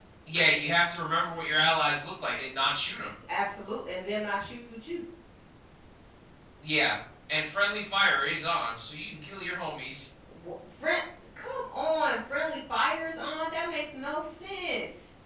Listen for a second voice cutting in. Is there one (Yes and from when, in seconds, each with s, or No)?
No